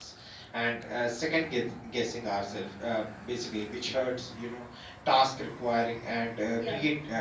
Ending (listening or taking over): listening